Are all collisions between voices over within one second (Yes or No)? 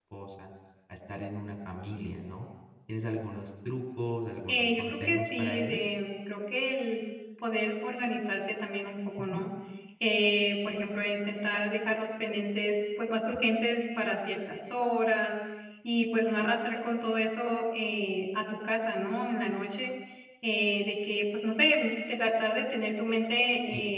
No